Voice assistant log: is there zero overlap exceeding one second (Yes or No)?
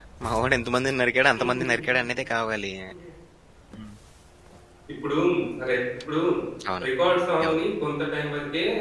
Yes